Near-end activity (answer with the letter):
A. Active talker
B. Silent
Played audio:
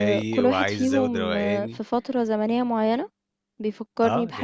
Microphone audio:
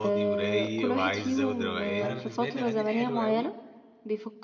A